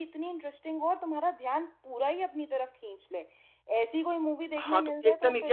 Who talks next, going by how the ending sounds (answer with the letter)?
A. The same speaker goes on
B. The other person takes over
B